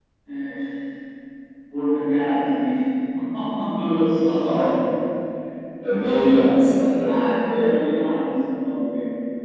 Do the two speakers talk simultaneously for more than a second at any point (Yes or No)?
No